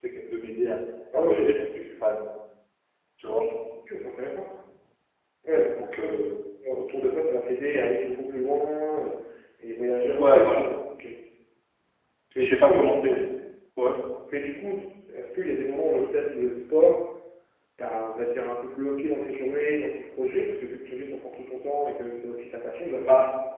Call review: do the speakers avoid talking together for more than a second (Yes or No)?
Yes